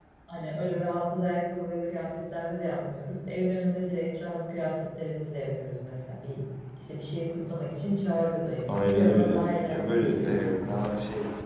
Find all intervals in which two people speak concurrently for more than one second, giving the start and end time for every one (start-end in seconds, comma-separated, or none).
8.7-10.6